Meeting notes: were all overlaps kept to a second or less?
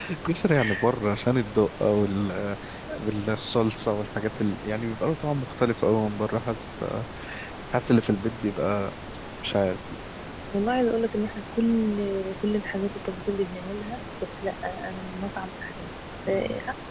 Yes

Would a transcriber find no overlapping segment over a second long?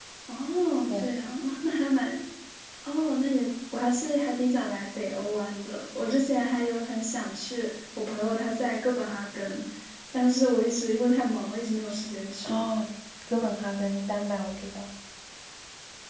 Yes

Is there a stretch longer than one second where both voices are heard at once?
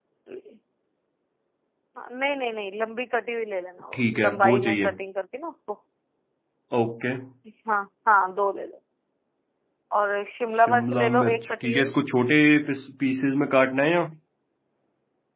Yes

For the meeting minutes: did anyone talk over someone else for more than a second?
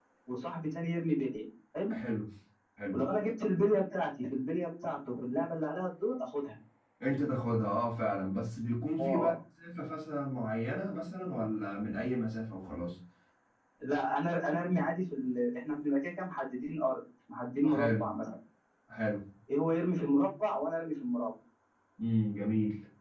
No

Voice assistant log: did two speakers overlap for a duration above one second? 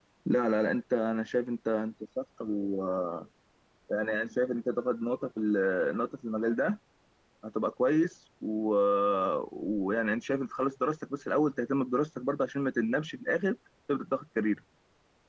No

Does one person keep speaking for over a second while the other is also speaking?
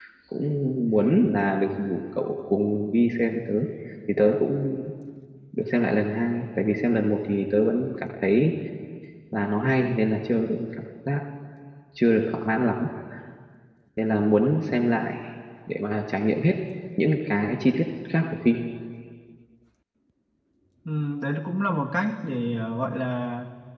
No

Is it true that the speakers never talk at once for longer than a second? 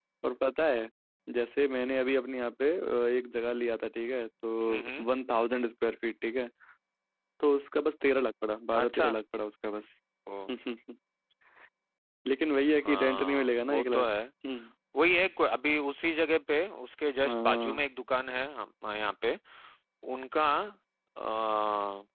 No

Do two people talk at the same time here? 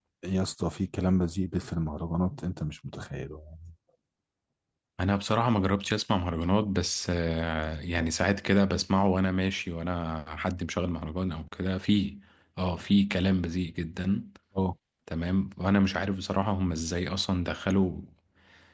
No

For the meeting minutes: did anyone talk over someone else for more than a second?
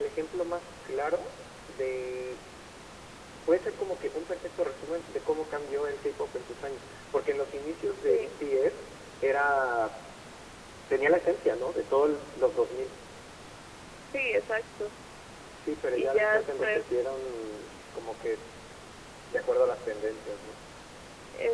Yes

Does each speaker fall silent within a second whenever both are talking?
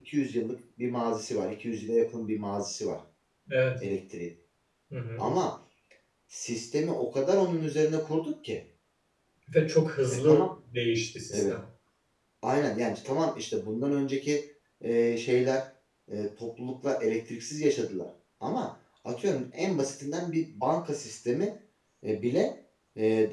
Yes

